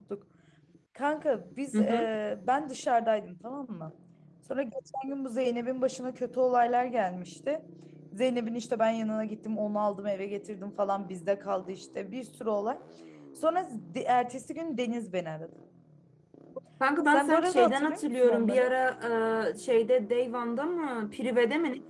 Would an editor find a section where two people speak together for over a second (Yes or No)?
Yes